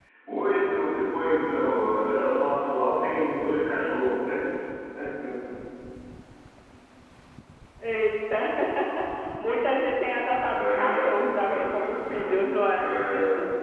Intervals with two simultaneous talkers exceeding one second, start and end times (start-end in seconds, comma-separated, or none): 10.6-12.9